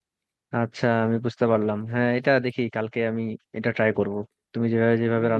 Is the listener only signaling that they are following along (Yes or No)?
Yes